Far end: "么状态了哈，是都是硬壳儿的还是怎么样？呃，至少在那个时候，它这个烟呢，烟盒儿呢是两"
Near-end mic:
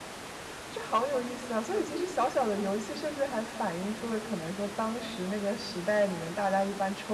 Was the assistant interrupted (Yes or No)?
Yes